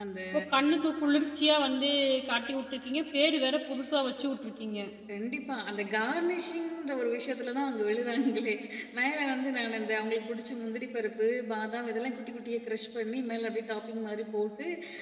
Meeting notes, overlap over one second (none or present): none